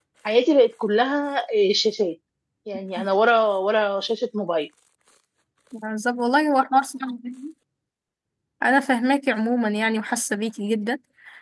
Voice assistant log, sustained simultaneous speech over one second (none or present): none